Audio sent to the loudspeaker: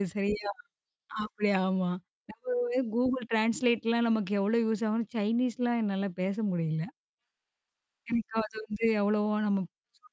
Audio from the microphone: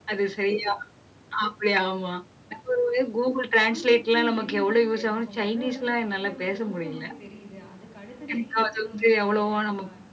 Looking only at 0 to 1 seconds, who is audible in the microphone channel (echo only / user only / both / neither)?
echo only